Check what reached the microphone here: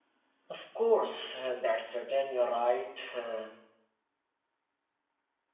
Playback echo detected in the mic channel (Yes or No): No